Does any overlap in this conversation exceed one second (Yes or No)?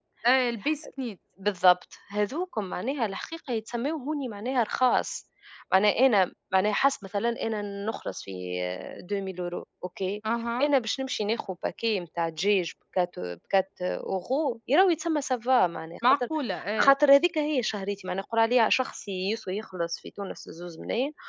No